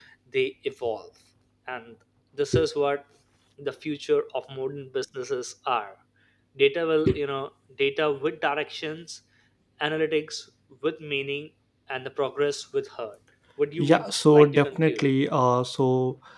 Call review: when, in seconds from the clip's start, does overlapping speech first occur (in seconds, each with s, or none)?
13.8 s